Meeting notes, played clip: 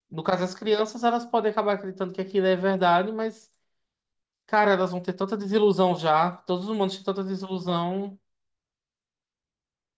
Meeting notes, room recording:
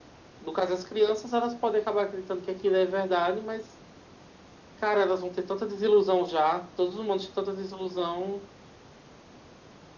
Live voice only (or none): none